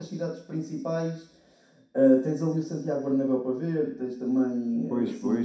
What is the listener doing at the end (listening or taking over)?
taking over